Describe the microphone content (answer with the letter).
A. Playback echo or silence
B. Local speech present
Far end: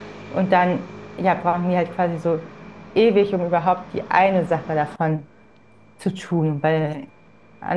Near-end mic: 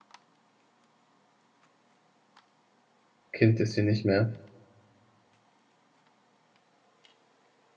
B